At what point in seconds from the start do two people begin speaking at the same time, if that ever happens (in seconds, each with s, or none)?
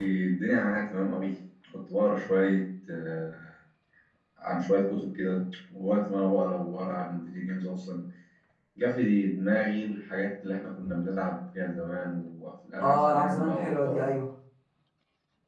12.8 s